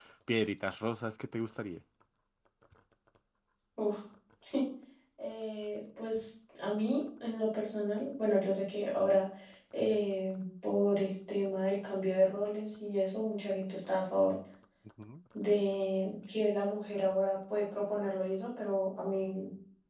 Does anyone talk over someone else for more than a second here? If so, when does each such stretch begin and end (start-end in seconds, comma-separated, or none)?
none